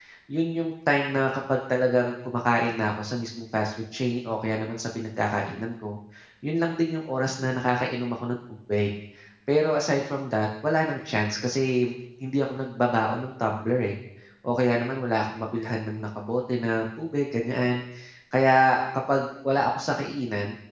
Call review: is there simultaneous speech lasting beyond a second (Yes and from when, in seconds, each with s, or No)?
No